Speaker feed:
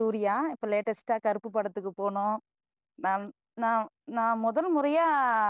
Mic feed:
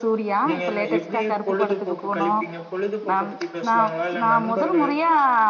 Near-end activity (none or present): present